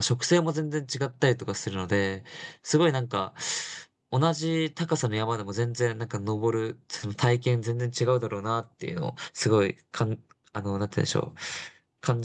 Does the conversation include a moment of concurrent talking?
No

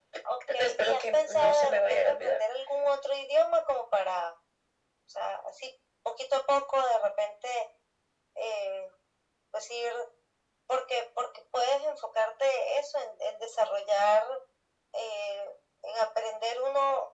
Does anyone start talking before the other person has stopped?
Yes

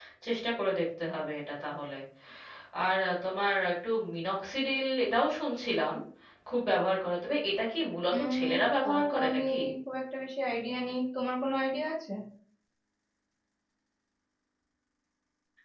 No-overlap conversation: No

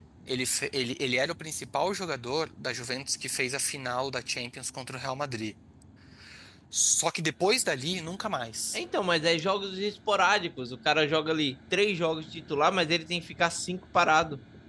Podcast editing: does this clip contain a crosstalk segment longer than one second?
No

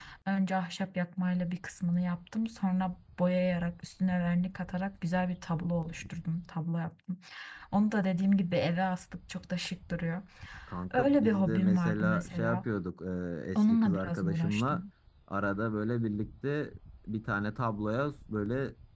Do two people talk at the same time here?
Yes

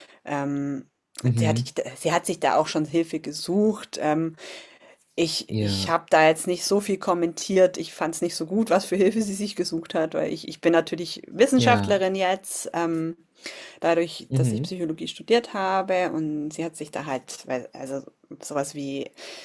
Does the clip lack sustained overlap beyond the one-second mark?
Yes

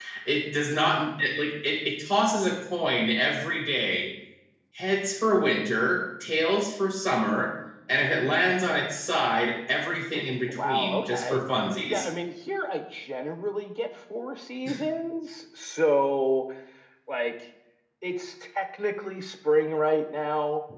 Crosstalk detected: Yes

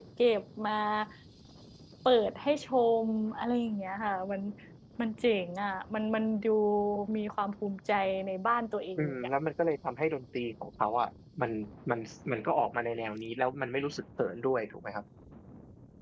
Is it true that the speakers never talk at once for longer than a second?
Yes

